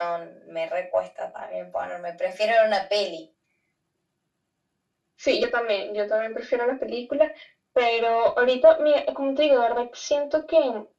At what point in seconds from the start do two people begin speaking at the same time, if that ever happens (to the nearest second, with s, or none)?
none